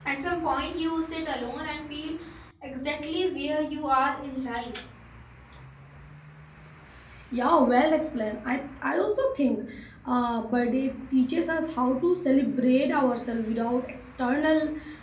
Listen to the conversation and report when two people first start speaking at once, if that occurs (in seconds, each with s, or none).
none